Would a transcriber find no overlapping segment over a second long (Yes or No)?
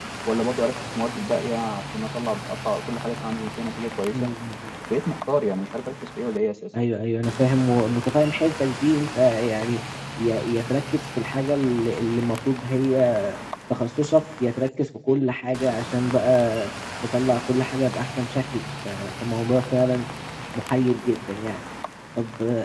Yes